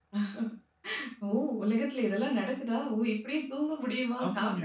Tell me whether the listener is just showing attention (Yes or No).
No